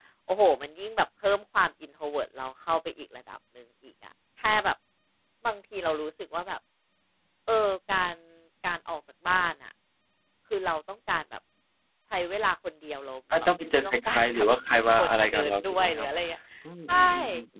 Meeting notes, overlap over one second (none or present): present